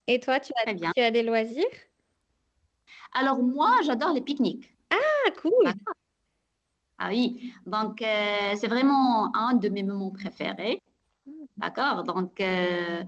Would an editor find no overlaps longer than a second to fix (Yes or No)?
Yes